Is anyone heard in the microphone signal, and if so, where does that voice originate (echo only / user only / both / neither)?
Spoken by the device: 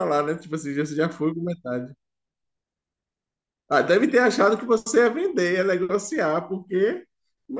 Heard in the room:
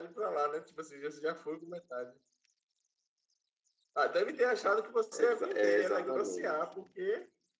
both